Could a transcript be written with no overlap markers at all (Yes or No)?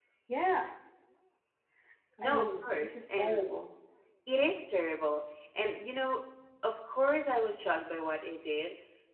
No